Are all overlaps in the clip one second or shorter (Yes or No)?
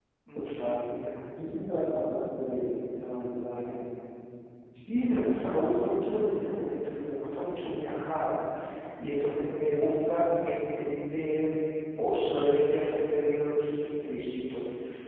Yes